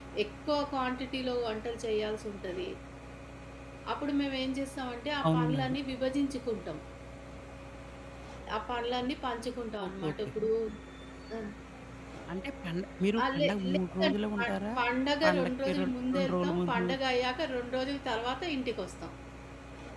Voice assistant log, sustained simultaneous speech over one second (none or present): present